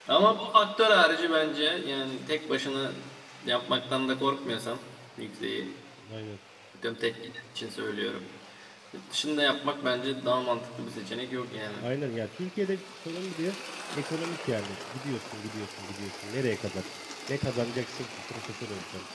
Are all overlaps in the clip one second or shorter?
Yes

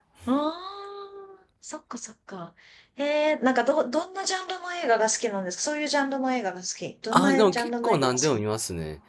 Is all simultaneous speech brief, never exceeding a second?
No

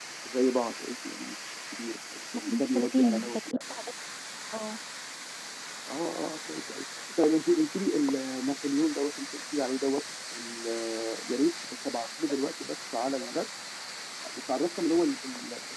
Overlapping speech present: Yes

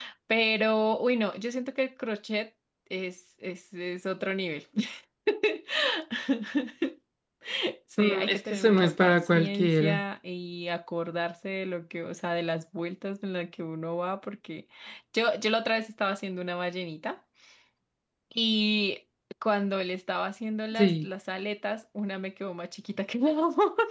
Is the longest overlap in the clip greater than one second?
Yes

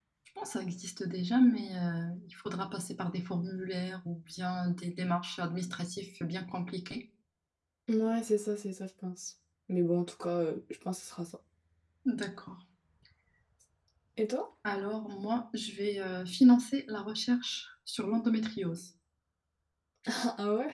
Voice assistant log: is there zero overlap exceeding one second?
Yes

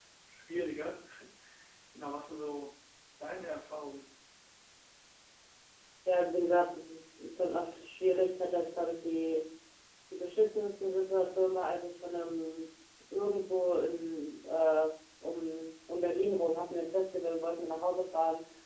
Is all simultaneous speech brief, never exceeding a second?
Yes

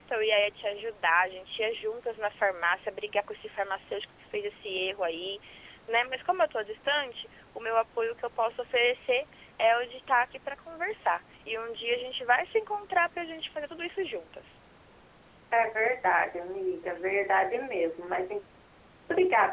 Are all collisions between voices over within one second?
Yes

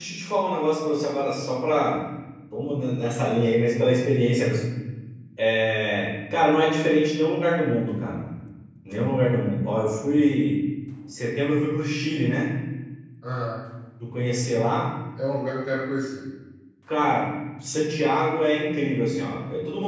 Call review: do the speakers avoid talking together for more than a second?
Yes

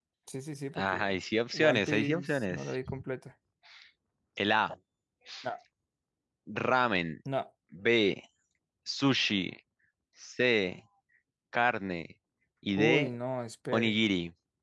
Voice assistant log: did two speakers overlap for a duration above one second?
Yes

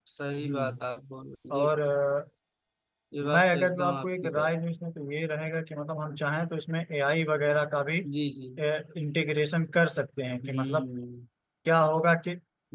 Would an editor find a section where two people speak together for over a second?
Yes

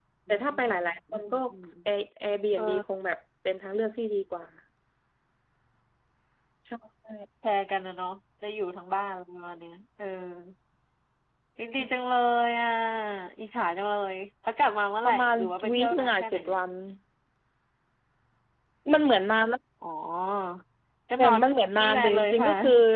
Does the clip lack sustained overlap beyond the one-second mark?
No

